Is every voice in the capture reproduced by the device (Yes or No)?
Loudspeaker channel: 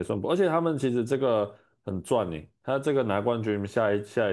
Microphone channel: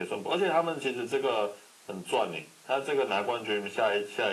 Yes